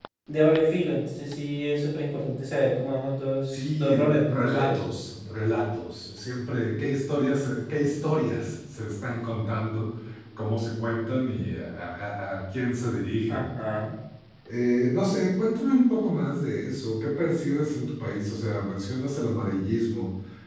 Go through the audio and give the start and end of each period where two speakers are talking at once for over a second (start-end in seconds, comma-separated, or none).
3.5-4.8